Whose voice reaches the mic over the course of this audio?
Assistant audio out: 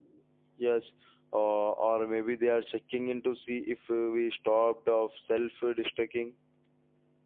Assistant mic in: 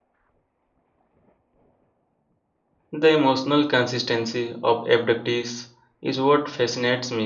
user only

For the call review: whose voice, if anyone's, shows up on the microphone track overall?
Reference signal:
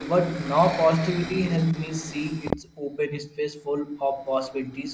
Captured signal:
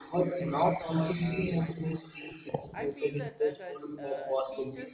both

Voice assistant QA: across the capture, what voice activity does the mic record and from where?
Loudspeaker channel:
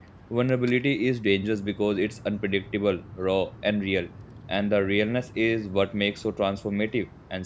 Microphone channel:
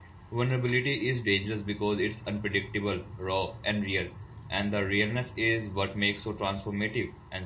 echo only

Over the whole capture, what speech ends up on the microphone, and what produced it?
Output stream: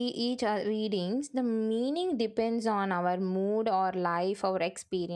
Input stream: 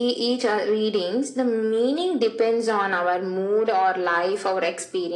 echo only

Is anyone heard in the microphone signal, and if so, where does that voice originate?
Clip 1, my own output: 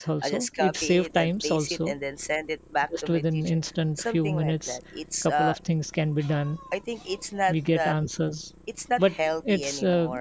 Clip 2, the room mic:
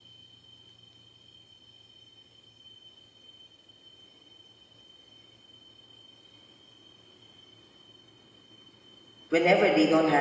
user only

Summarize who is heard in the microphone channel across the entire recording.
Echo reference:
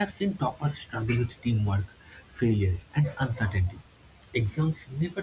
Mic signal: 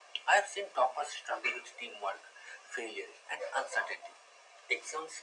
echo only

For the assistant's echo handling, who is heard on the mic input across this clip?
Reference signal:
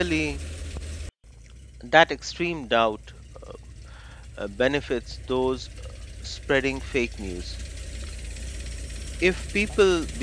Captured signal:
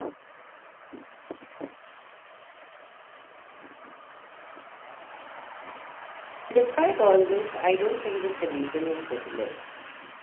user only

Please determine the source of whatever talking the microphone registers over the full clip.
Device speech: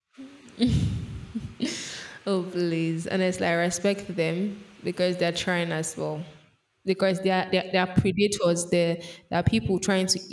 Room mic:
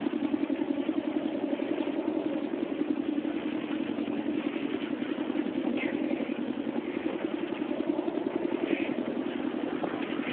neither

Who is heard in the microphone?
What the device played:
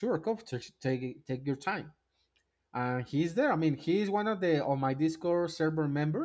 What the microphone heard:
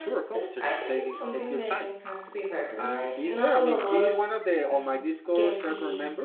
both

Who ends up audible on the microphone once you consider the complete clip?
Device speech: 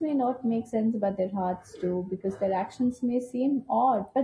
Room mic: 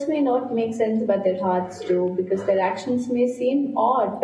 echo only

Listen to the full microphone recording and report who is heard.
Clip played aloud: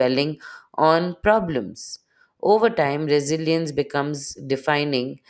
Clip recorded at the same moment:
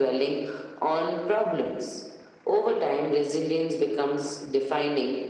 echo only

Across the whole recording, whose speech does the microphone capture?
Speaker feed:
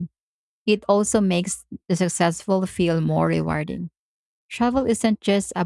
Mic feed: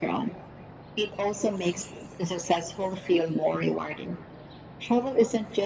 echo only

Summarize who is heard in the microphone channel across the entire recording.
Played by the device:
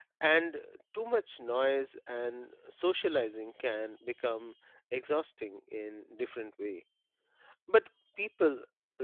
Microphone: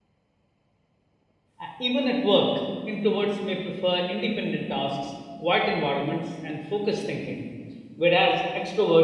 user only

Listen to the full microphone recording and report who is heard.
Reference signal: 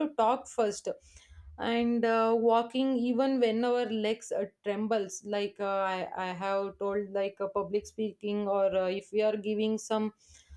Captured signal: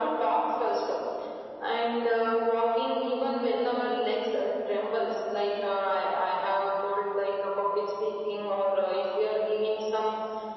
echo only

